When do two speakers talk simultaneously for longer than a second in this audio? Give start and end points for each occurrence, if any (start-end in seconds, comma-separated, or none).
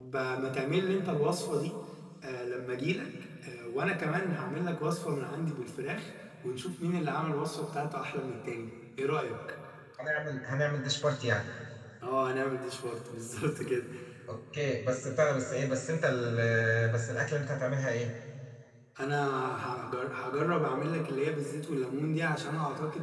none